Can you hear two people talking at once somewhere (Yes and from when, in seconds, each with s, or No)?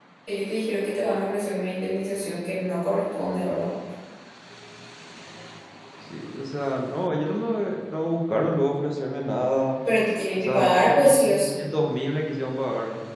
Yes, from 10.4 s